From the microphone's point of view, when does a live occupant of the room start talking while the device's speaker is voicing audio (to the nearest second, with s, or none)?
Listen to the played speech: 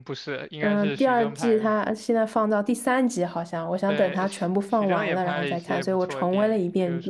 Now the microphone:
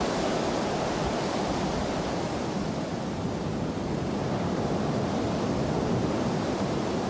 none